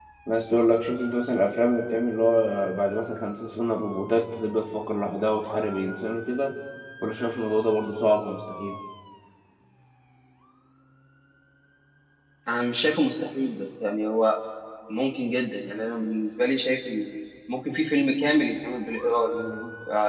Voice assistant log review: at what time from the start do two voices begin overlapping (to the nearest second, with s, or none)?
none